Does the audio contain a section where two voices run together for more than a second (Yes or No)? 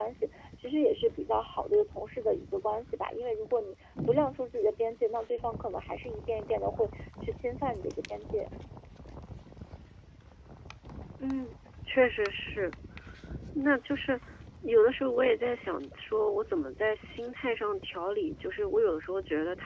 No